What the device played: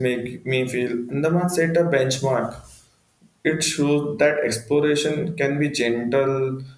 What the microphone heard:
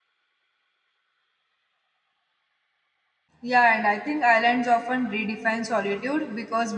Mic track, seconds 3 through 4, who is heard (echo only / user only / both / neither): user only